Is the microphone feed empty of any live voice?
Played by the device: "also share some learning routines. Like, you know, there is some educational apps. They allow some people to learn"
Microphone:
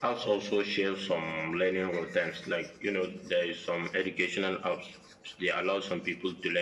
Yes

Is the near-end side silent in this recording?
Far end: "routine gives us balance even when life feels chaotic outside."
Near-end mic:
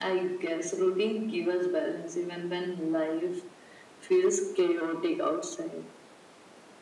Yes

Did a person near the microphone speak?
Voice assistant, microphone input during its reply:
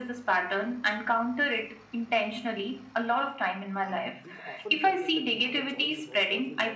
Yes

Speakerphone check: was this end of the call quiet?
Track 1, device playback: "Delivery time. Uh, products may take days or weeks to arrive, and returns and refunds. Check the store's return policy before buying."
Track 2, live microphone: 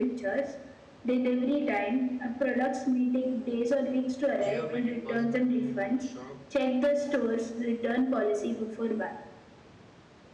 No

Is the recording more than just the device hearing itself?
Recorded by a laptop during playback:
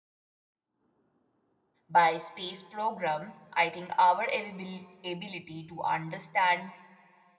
Yes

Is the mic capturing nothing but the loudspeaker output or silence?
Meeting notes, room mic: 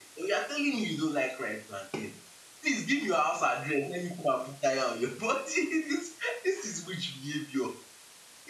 No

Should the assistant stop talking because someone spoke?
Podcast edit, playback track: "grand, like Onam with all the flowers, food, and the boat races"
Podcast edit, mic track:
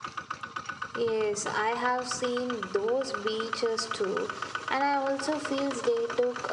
Yes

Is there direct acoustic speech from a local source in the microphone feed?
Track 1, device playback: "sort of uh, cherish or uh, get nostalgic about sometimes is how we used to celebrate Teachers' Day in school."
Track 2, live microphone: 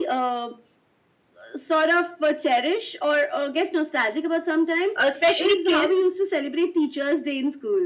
Yes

